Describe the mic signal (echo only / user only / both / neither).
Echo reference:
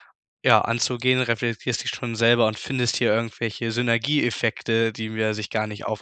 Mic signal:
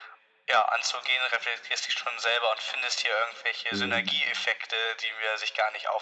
both